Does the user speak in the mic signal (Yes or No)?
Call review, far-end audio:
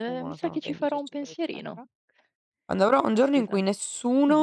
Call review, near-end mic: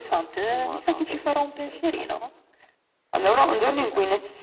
No